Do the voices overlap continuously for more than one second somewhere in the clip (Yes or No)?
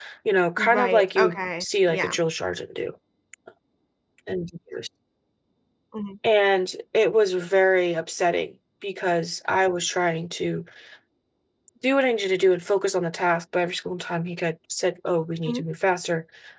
Yes